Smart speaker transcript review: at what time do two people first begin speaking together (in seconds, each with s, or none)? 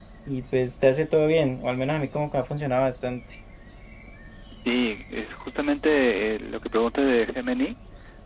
none